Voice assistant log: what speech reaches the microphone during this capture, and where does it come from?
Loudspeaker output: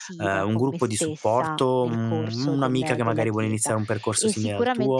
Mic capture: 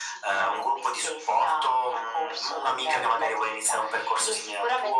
echo only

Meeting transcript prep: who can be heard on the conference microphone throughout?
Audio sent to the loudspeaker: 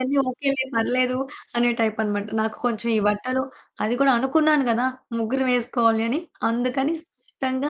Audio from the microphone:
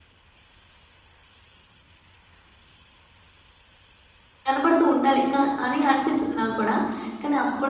user only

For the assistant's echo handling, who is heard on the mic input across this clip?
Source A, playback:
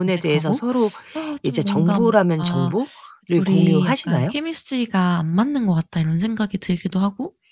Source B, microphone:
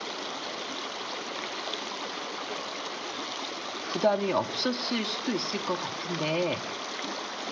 user only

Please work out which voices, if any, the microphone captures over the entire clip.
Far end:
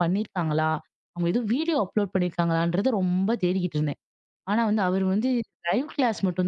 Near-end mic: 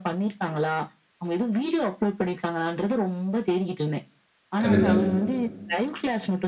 both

